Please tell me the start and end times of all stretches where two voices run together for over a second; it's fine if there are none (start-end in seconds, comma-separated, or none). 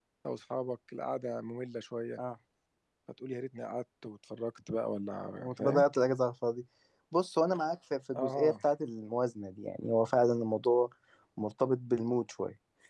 none